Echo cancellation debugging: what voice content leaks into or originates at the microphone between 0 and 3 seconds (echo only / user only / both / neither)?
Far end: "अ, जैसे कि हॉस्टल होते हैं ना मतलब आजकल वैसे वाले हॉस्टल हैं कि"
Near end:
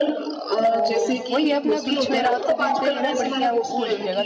both